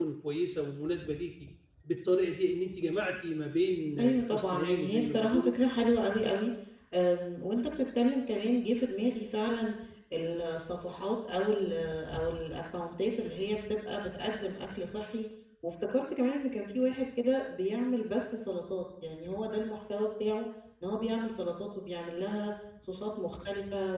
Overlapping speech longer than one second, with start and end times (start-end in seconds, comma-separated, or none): 4.0-5.5